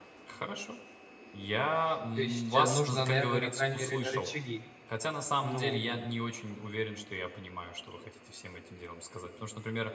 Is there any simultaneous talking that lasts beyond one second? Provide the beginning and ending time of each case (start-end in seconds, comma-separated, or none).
2.2-4.3